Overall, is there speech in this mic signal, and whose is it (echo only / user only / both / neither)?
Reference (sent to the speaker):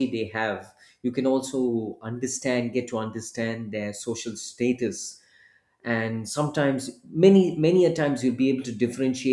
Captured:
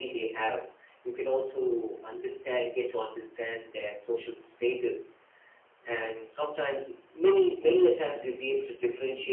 echo only